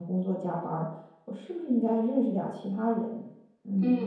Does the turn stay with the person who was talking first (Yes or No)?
No